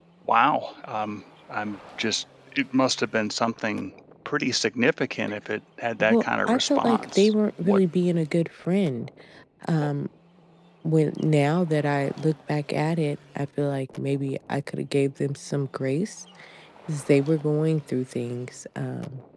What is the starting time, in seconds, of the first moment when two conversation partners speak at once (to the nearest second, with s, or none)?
6 s